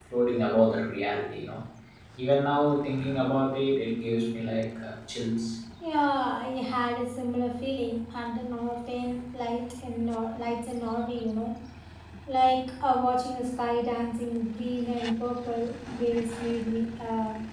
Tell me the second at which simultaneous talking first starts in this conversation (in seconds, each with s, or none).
none